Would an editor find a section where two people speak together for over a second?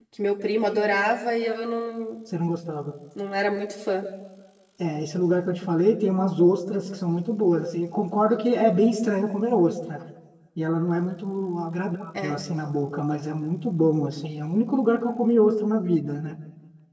No

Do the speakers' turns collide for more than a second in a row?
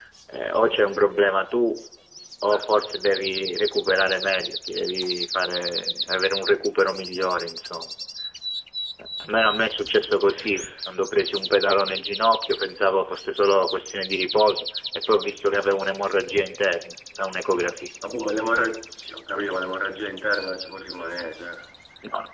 No

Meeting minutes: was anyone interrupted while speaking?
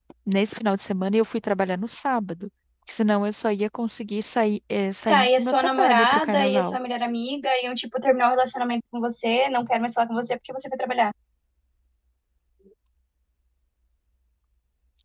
Yes, from 5.1 s

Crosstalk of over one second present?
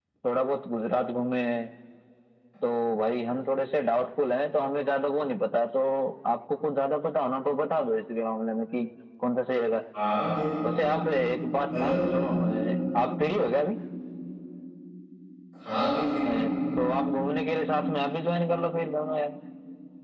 No

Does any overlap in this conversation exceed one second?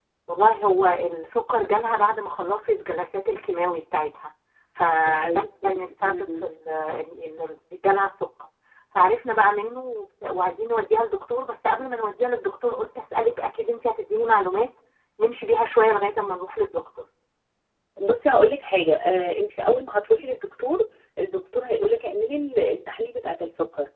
Yes, from 5.0 s

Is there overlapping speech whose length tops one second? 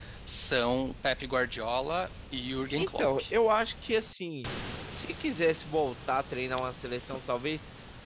No

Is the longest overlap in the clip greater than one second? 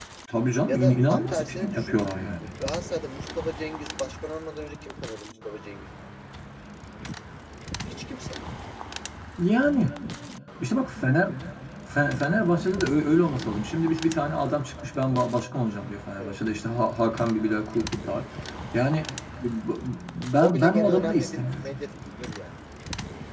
Yes, from 0.7 s

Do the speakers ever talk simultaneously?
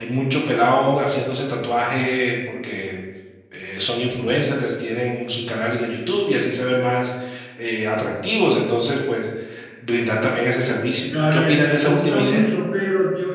Yes, from 11.0 s

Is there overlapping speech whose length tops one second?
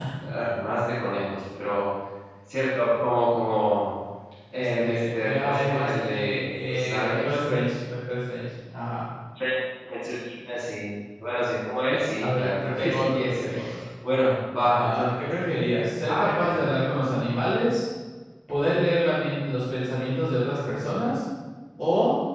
Yes, from 4.5 s

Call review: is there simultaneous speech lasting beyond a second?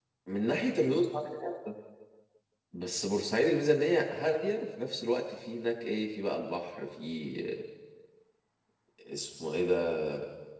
No

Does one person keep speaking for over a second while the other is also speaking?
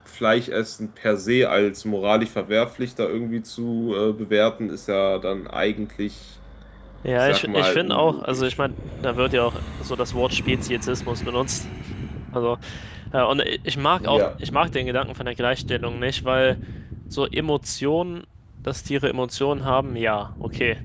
Yes, from 7.3 s

